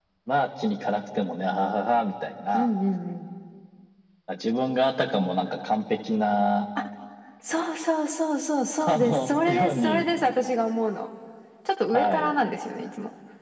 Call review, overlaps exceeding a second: present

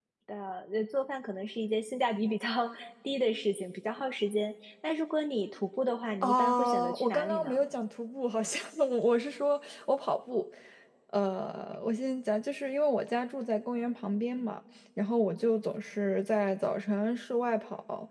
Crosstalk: present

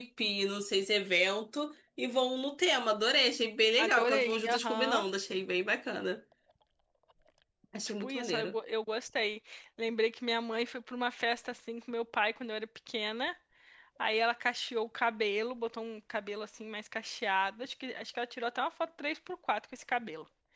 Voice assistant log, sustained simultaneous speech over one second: present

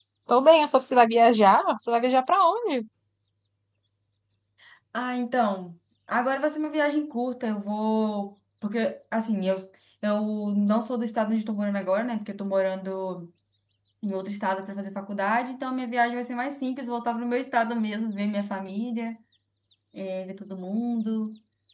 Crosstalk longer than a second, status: none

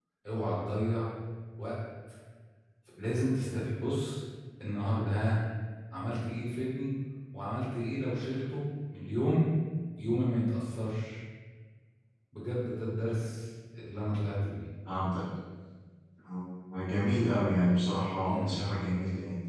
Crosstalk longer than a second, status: none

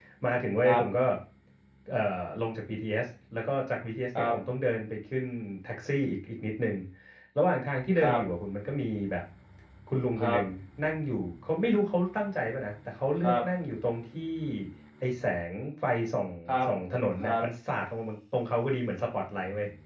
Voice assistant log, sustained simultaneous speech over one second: none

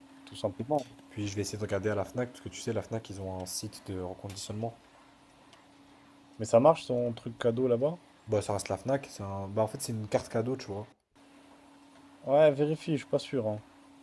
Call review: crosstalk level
none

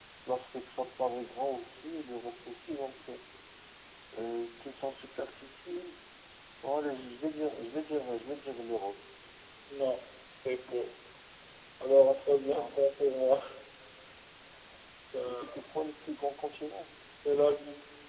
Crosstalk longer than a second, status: none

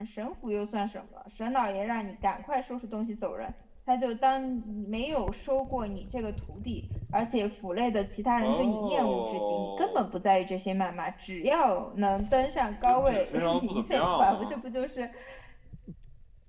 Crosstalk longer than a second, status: present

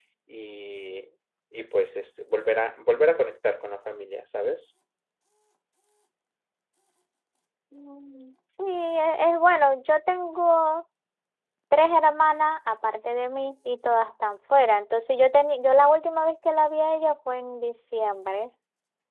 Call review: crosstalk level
none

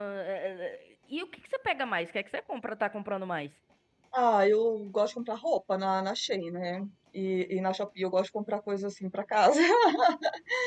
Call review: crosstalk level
none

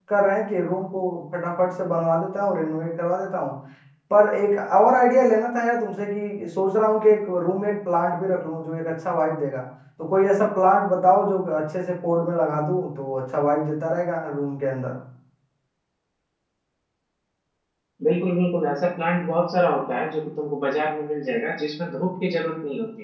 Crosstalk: none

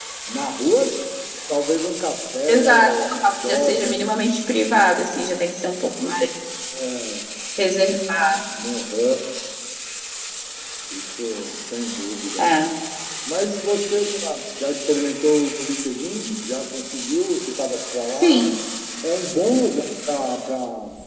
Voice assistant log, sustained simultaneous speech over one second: present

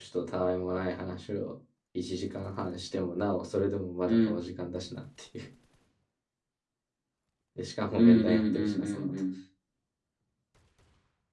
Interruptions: present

